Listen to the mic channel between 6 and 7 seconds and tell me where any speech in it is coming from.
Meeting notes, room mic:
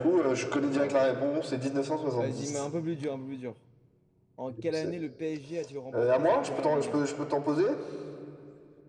both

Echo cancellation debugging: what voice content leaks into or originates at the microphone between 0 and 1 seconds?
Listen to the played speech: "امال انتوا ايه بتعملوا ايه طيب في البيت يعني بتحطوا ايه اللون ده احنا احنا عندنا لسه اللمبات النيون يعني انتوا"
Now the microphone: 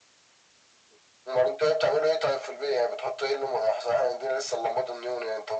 neither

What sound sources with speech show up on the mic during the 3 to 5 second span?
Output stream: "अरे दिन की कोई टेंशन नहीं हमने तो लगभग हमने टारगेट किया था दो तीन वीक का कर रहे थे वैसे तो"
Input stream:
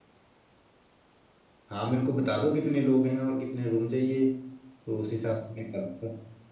user only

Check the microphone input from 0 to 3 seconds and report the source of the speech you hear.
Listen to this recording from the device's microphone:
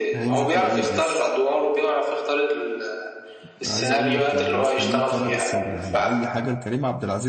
both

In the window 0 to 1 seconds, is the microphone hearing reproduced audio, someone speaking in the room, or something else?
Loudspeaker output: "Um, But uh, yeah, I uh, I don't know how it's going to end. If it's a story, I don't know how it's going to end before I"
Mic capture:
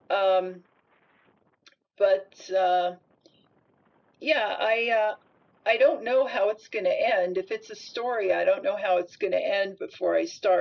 echo only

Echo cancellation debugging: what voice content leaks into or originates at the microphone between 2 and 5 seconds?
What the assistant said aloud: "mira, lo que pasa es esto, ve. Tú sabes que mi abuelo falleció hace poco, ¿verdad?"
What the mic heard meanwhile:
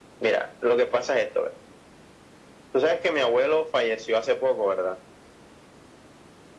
echo only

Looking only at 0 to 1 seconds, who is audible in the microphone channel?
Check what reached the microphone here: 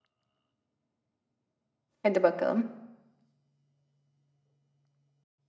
neither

